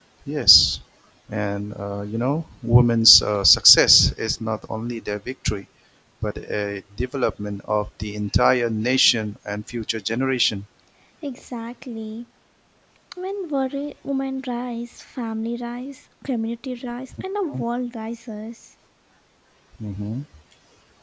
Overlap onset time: none

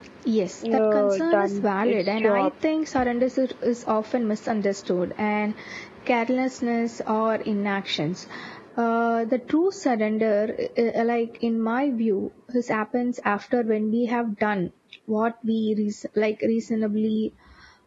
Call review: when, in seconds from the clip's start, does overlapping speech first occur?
1 s

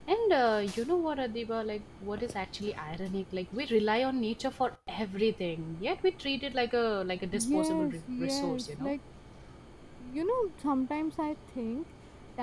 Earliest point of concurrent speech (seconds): 7 s

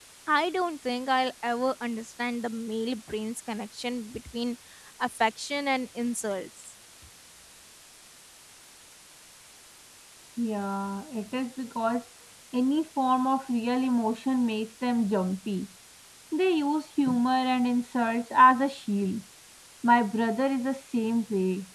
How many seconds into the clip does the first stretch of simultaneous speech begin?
none

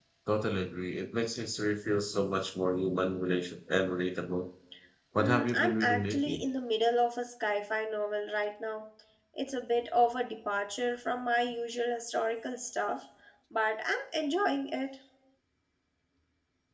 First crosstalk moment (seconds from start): 5 s

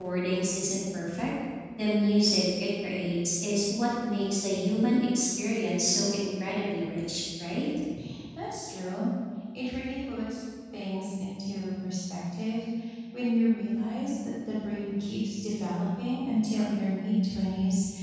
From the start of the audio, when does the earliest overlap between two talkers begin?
none

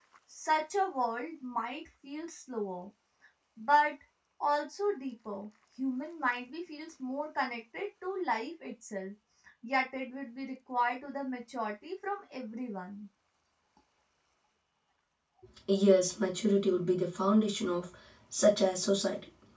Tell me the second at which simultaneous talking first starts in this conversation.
none

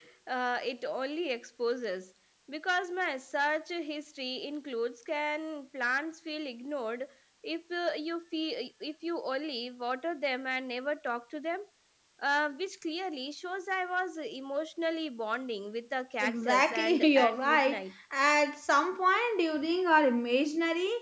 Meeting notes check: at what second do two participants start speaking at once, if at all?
16 s

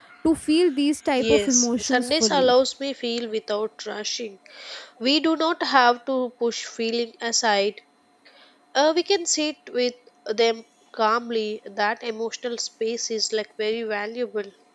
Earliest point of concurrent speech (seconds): 1 s

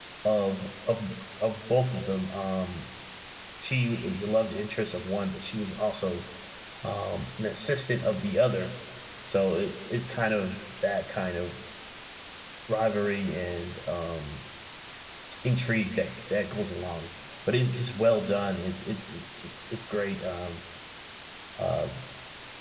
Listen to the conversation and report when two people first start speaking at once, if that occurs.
none

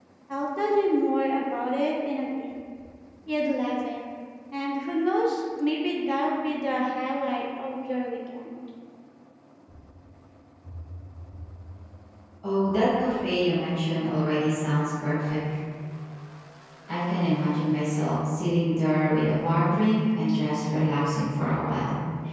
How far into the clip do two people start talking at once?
none

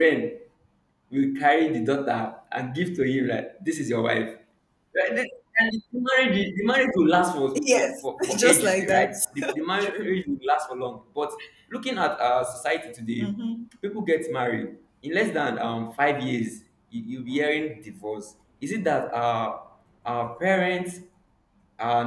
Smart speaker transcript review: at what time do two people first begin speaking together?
8 s

